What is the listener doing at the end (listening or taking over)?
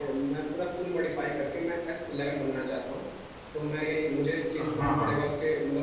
listening